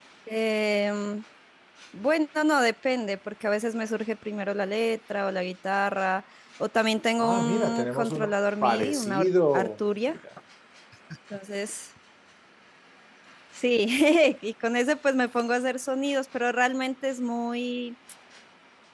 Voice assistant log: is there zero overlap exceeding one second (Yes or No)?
No